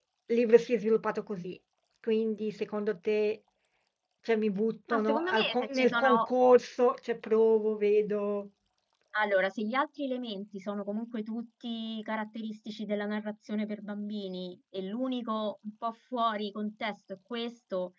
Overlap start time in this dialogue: 4.9 s

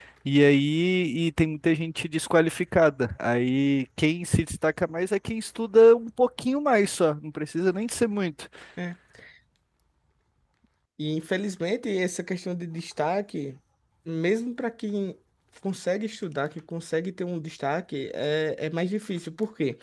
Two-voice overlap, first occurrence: none

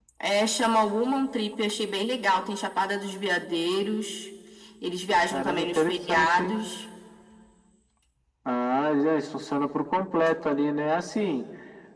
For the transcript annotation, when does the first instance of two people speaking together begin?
5.3 s

